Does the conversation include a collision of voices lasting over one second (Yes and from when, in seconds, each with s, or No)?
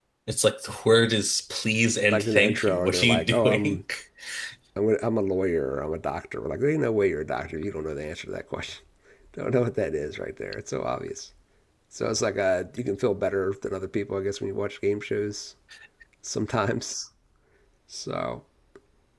Yes, from 2.1 s